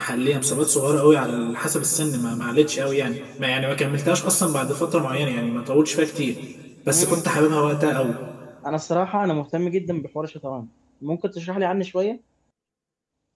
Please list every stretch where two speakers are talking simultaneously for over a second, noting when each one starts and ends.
none

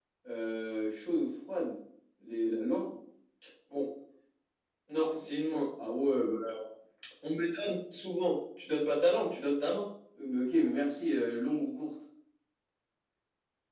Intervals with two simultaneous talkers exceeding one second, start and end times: none

